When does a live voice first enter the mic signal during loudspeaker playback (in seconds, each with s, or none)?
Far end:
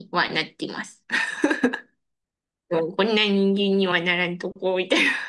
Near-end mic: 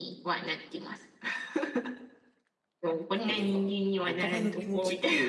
3.1 s